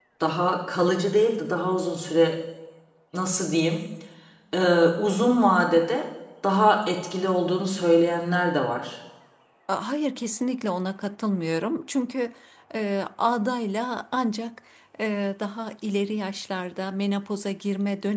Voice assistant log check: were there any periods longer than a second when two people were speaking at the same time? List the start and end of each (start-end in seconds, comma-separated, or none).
none